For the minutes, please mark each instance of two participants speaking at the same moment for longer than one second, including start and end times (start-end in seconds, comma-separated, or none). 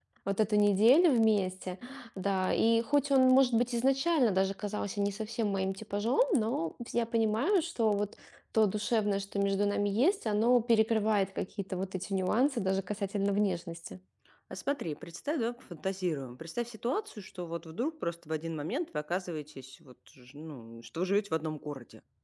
none